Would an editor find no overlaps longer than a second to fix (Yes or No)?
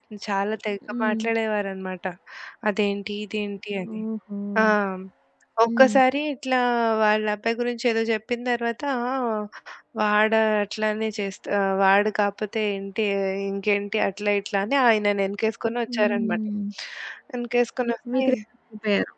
Yes